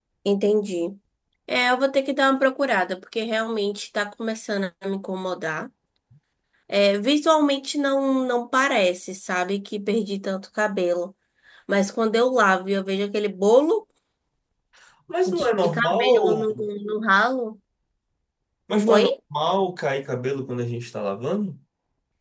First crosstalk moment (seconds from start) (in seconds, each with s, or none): 15.3 s